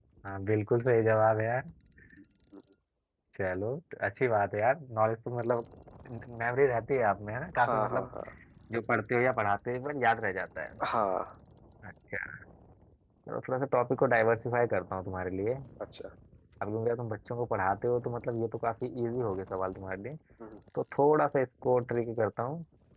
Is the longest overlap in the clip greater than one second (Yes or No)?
No